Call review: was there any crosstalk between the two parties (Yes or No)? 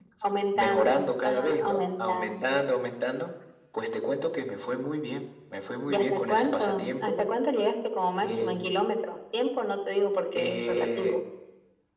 Yes